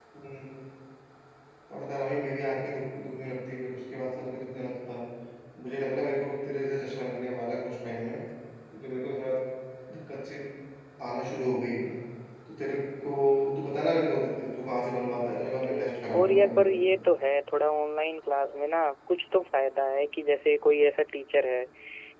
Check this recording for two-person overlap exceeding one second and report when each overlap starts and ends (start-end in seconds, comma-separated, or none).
15.6-16.9